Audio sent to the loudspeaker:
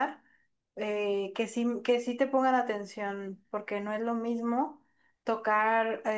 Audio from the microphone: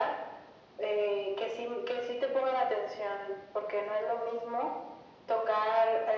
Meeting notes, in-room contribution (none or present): none